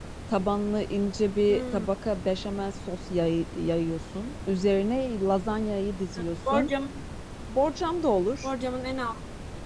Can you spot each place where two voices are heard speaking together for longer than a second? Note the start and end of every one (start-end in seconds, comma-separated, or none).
none